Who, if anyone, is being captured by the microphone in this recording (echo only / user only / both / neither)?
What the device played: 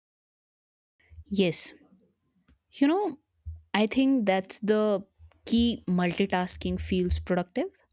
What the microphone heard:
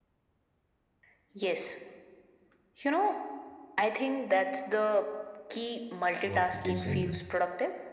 both